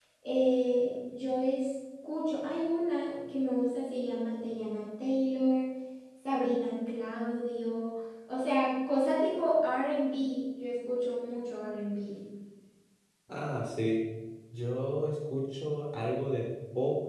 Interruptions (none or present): none